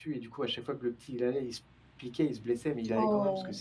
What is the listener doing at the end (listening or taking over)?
listening